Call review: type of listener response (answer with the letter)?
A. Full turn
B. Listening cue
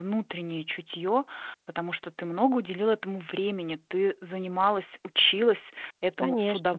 B